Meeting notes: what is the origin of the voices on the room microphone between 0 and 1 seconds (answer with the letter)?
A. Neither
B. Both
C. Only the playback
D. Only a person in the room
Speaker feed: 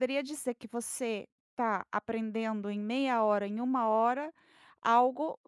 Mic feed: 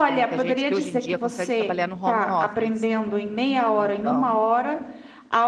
B